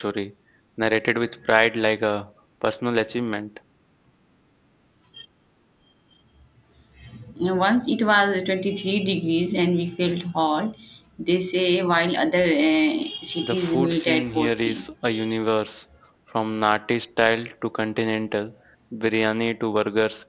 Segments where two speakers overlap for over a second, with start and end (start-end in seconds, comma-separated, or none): 13.4-14.8